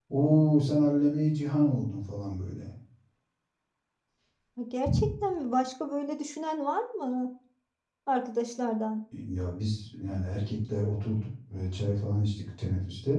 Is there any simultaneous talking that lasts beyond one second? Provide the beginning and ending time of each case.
none

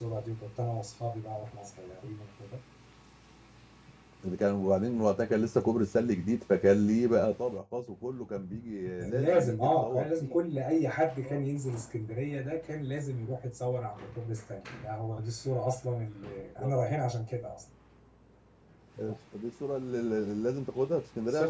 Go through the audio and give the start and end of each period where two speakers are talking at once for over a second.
9.1-10.4

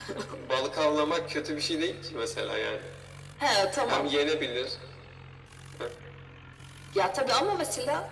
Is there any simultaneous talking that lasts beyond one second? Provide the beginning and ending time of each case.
none

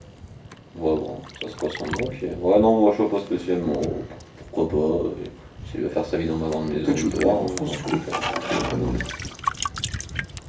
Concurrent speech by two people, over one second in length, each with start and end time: 6.7-8.0

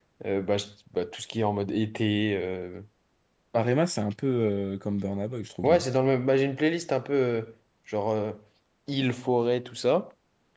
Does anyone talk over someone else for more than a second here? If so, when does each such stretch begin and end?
none

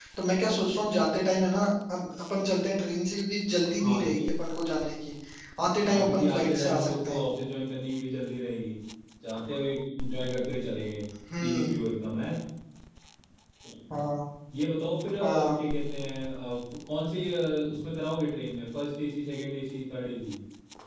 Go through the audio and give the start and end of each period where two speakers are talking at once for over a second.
5.9-7.2

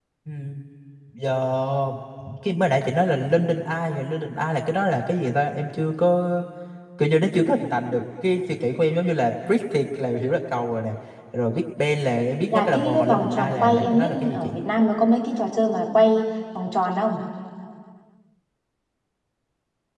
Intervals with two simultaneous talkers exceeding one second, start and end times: 12.5-14.6

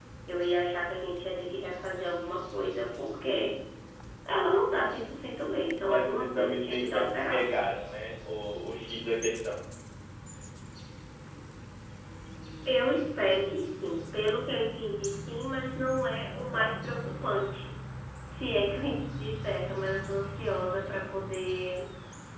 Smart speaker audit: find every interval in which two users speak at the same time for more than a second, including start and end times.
5.9-7.5

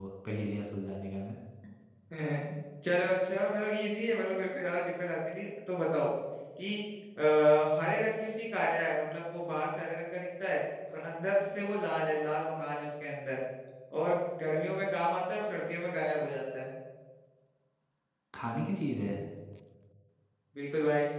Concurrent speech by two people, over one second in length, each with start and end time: none

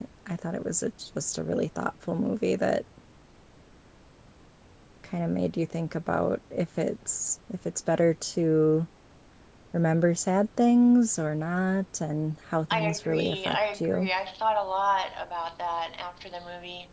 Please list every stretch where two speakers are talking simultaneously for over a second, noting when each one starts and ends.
12.7-14.1

